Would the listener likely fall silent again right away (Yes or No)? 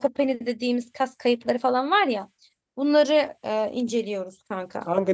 No